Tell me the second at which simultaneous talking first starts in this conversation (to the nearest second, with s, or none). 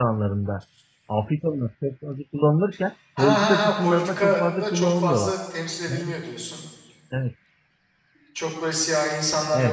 3 s